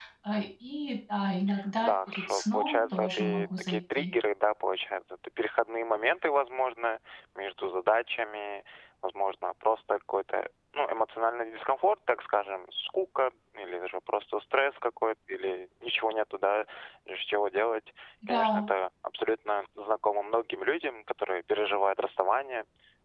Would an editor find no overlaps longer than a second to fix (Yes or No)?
No